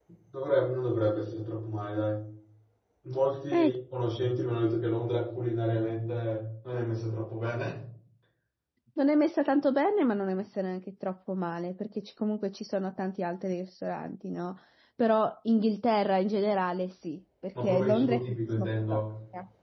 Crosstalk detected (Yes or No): Yes